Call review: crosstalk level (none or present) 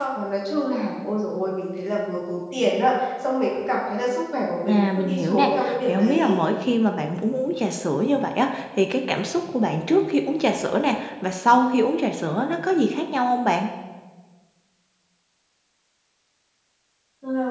present